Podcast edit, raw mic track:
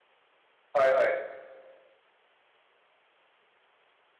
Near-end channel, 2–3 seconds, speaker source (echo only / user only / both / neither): neither